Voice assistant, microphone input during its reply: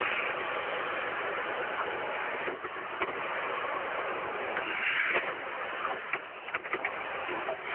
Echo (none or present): none